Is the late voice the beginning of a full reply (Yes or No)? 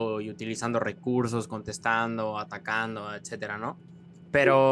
No